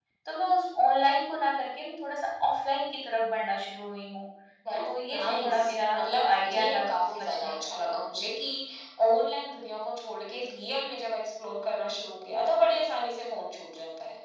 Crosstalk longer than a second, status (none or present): present